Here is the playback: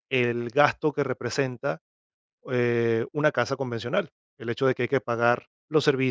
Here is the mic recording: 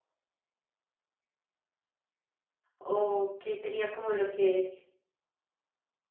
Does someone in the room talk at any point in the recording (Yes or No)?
Yes